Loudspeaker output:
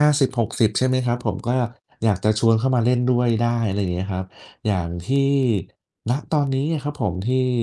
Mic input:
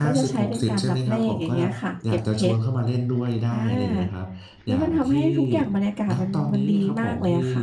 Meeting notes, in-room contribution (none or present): present